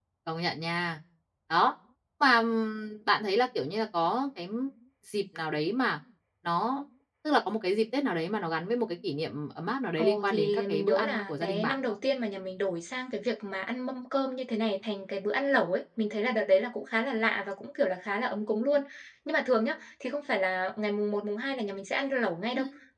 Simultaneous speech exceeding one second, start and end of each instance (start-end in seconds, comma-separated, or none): 10.0-12.0